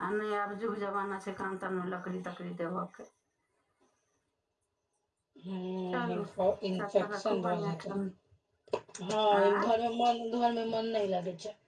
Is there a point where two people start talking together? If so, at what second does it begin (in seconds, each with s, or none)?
5.9 s